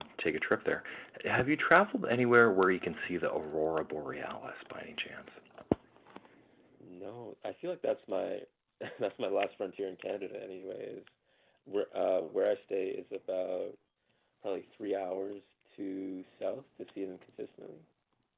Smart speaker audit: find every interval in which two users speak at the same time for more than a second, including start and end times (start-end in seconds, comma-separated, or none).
none